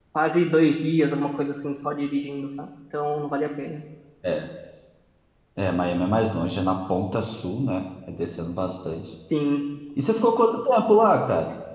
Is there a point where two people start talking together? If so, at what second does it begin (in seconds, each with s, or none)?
none